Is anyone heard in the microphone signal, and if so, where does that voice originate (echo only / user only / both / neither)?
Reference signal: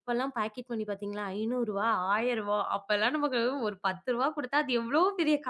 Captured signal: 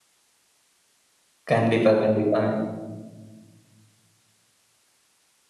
user only